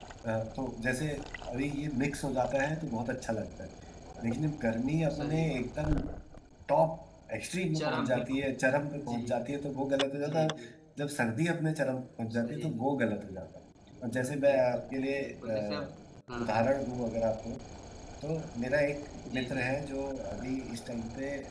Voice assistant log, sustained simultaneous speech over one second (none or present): present